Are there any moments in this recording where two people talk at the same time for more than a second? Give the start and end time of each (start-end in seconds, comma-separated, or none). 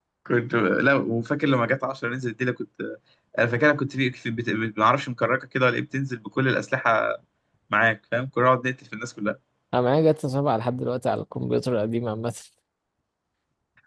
none